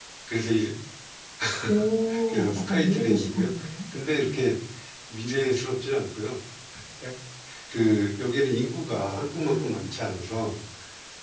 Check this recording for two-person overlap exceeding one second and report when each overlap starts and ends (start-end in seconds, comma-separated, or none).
2.3-3.5